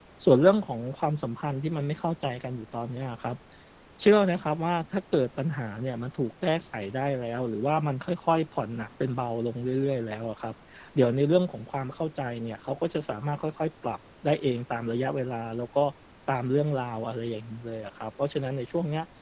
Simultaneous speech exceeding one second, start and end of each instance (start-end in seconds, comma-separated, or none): none